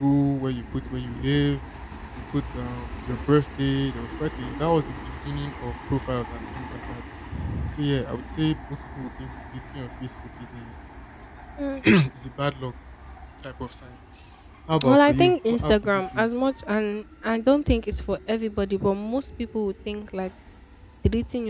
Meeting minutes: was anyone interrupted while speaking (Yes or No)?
Yes